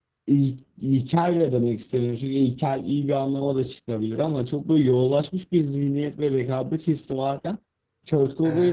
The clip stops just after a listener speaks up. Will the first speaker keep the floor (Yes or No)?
Yes